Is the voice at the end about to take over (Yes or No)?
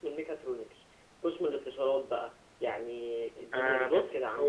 Yes